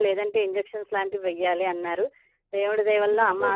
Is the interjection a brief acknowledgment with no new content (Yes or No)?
Yes